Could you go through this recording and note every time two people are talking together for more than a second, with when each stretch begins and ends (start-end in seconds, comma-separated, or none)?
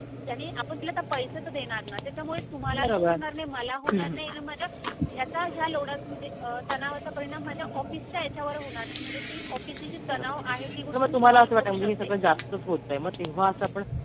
10.9-12.2